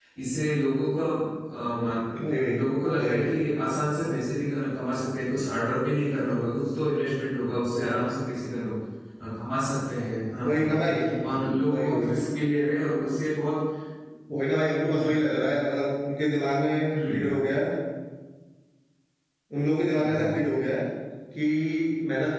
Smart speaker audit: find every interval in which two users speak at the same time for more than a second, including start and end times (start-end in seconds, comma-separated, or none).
none